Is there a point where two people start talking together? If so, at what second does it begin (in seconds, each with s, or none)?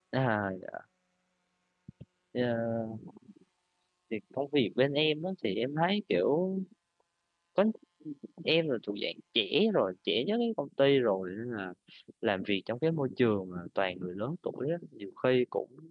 none